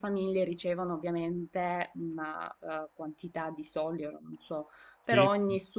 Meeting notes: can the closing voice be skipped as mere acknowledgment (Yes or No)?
Yes